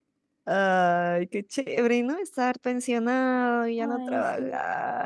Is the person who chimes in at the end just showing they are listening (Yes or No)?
Yes